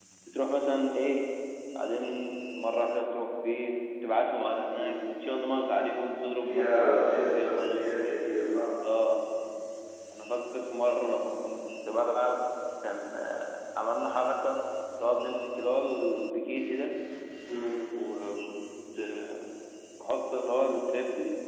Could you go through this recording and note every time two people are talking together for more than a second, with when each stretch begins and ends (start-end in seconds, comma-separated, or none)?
6.4-7.7